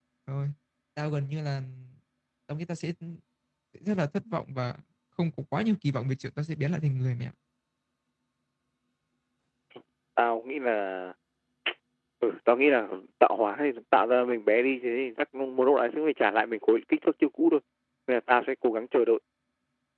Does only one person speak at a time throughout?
Yes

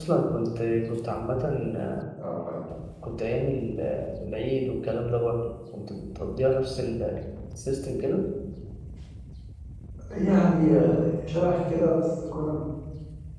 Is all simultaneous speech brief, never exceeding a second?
Yes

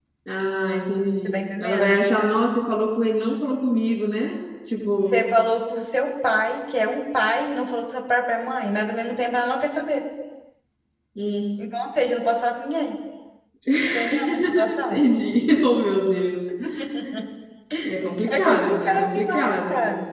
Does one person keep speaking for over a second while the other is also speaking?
Yes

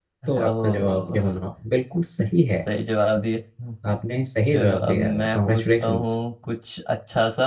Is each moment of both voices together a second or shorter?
No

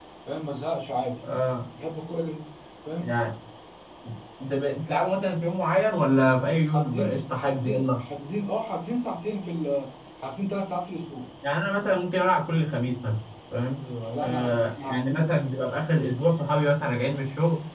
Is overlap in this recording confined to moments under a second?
No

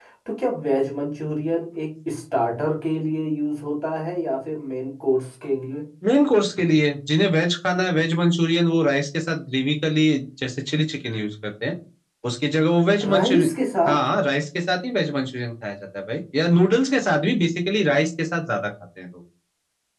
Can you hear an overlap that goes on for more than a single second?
No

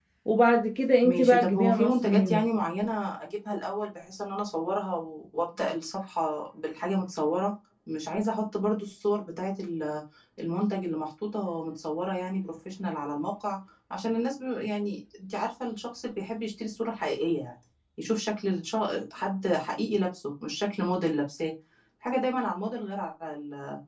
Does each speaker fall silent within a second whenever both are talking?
No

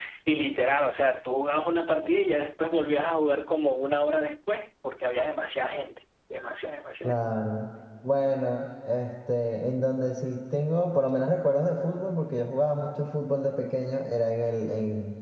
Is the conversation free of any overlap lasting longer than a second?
Yes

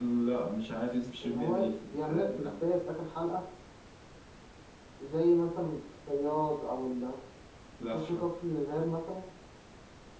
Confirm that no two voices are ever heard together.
No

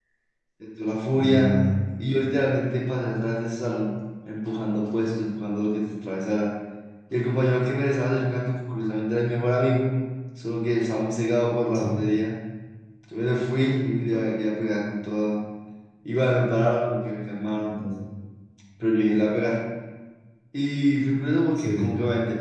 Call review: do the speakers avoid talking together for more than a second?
Yes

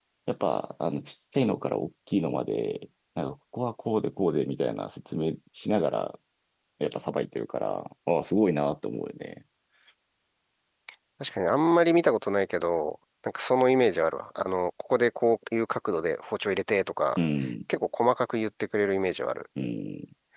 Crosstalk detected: No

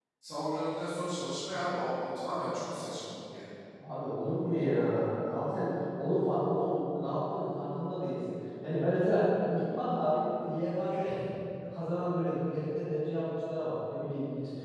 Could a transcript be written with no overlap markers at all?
Yes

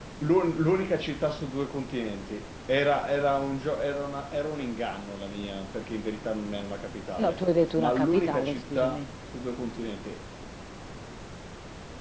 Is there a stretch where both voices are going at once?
Yes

